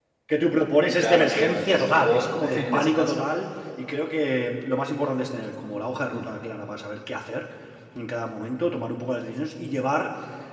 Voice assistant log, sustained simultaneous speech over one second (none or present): present